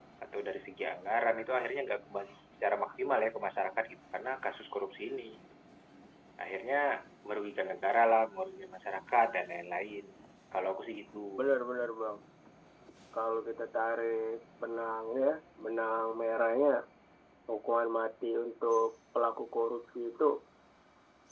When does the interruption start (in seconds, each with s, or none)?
none